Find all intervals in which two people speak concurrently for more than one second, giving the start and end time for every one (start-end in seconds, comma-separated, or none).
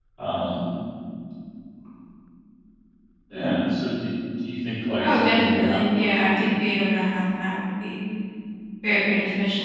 5.0-6.5